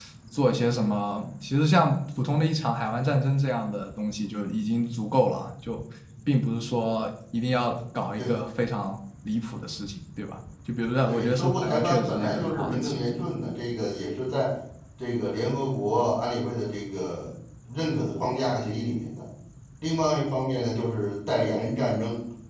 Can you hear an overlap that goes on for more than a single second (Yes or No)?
Yes